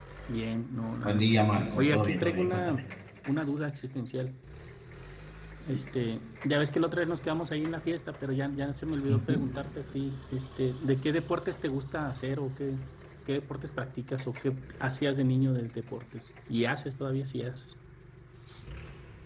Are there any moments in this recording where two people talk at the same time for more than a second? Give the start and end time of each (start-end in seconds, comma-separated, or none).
1.0-2.8